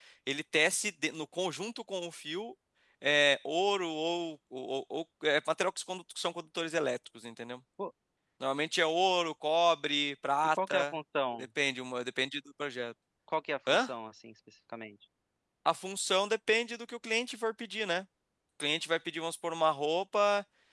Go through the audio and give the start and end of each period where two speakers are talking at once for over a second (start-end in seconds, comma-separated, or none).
none